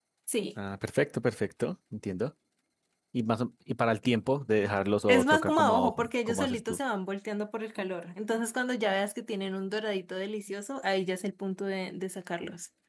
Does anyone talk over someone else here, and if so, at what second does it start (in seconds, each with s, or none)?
5.1 s